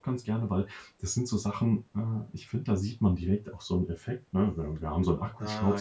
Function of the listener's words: listening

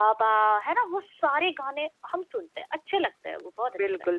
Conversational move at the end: taking over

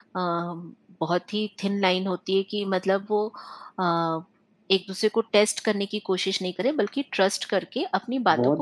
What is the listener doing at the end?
taking over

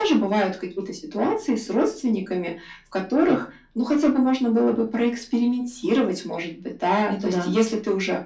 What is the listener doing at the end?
listening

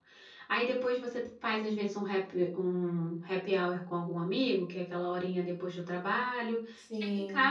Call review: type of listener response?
listening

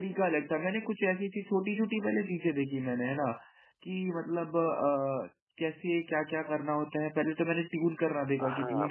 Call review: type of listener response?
taking over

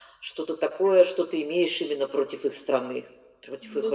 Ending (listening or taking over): taking over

